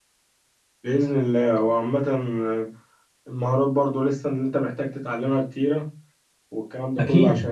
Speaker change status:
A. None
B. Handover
A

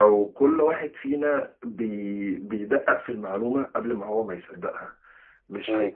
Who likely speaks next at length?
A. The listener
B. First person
B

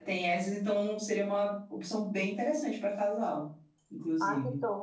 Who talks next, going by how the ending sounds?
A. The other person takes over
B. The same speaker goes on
A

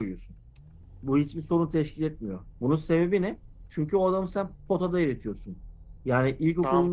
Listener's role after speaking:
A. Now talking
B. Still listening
A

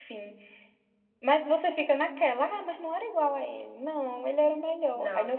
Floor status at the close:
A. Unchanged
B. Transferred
A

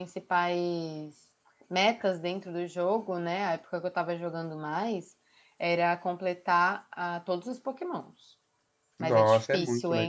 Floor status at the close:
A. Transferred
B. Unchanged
A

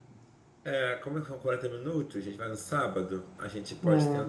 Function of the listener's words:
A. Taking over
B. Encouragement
B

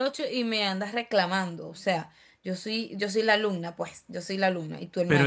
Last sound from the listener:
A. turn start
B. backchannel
A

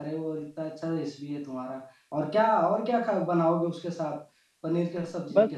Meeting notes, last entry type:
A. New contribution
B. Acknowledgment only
A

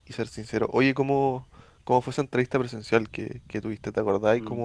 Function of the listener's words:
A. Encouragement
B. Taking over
A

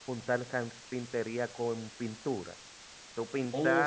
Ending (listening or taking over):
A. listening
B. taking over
B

